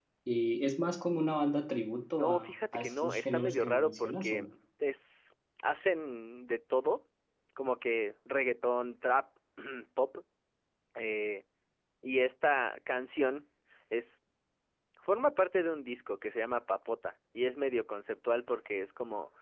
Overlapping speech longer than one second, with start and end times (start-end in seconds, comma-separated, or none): 2.2-4.4